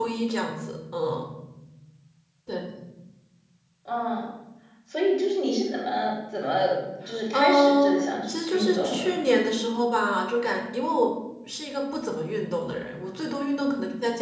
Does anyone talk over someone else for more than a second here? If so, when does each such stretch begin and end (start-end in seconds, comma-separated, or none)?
7.3-9.3